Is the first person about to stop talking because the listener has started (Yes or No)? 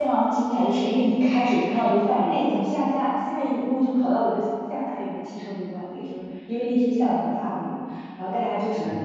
No